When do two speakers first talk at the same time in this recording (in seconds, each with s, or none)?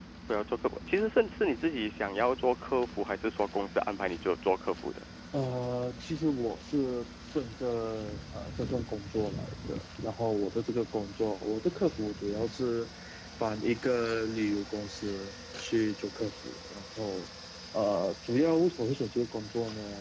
none